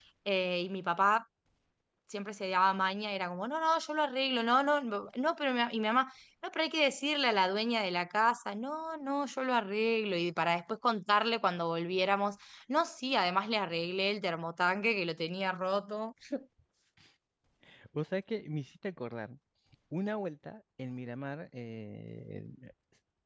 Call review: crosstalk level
none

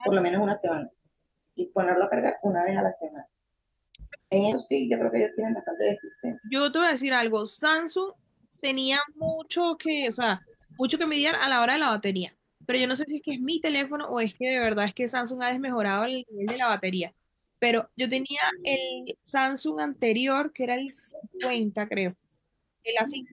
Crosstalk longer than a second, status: none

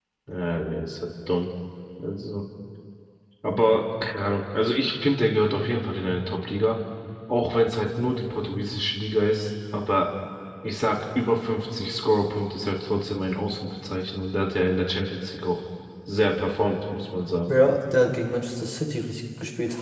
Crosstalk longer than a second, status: none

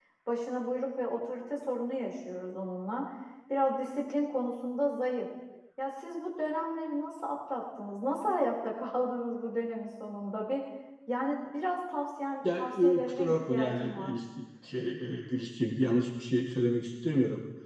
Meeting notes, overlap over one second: present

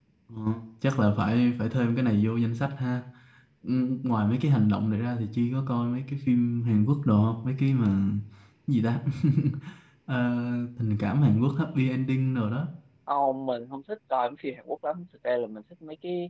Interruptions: none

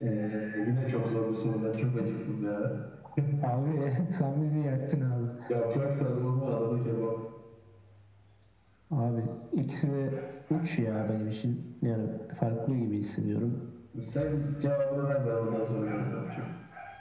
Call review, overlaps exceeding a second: none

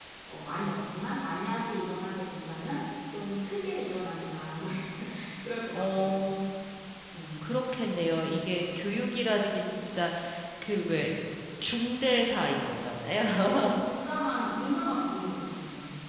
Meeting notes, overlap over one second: none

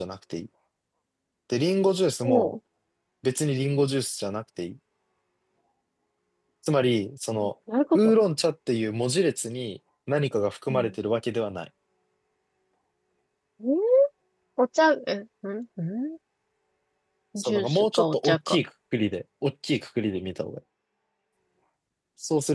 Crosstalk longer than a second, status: present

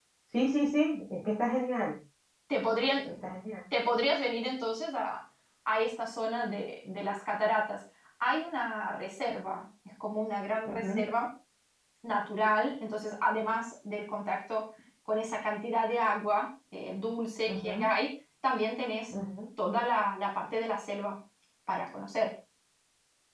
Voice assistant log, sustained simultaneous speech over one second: none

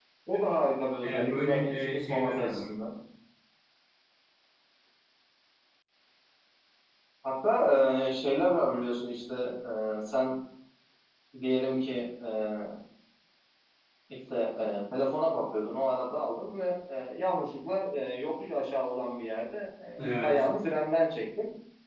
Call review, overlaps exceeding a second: present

